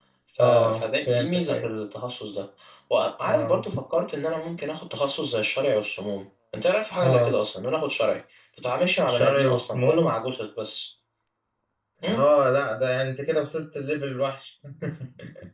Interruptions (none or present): present